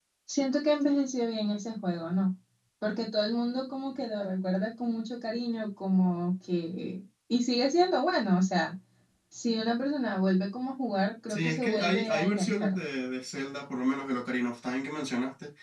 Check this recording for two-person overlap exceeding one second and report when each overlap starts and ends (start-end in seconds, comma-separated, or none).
11.3-12.8